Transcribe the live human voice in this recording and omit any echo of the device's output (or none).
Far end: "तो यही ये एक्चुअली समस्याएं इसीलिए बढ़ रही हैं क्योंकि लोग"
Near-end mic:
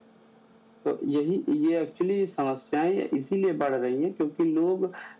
none